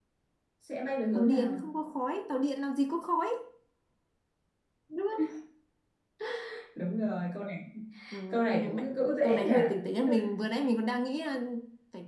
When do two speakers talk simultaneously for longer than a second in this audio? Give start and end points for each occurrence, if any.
8.3-9.5

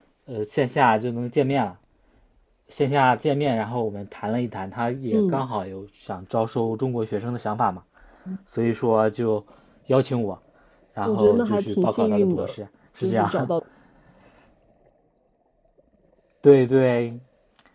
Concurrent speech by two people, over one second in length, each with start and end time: 11.0-12.5

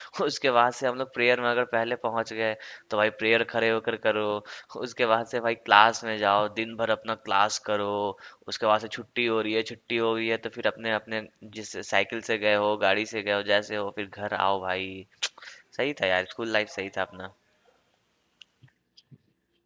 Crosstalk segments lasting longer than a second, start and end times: none

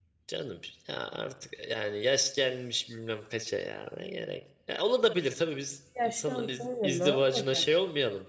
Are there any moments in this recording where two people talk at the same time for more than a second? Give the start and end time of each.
6.0-7.6

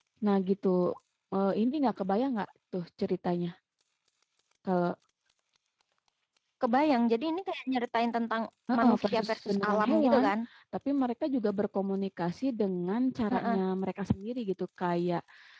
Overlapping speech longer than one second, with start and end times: 8.8-10.2

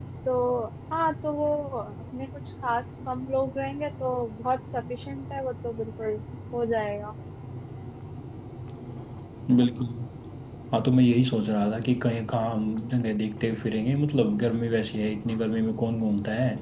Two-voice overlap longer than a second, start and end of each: none

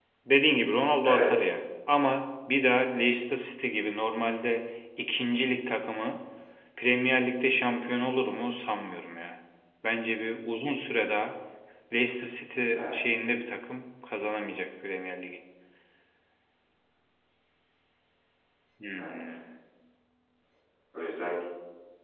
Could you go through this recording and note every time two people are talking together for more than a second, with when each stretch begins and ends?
none

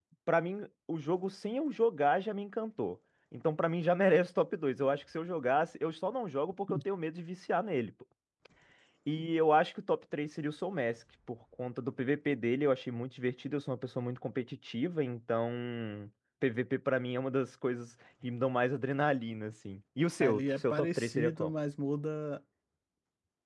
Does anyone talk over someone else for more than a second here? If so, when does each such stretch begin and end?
20.2-21.5

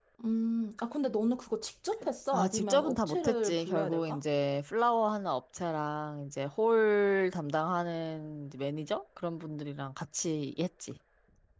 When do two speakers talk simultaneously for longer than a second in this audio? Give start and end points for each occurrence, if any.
2.3-4.2

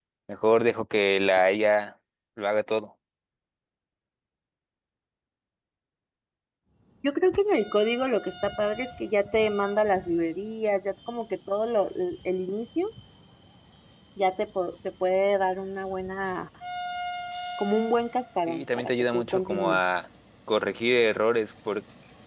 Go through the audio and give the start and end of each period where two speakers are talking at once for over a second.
18.5-19.8

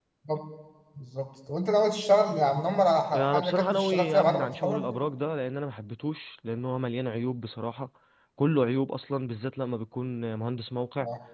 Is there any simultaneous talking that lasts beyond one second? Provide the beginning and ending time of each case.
3.1-4.8

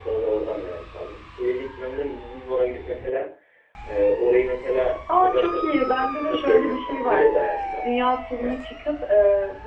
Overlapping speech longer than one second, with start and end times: 5.1-7.4

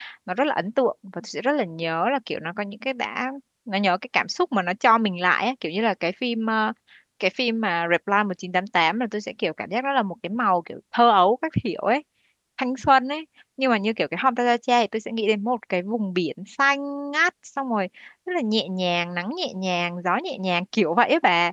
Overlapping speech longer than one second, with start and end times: none

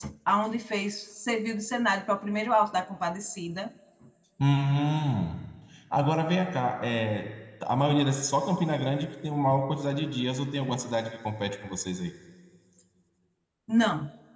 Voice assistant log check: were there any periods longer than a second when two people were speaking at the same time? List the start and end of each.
none

